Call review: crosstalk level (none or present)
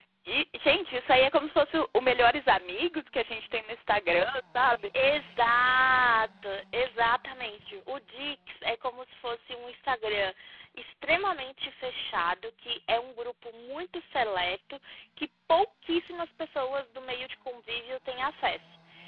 none